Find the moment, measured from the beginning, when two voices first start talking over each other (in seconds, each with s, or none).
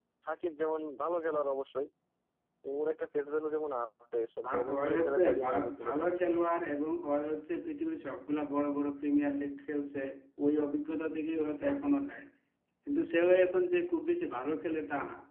4.4 s